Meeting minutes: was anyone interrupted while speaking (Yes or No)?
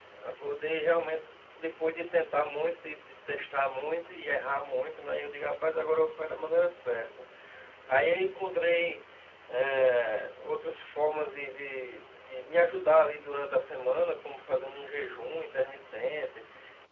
No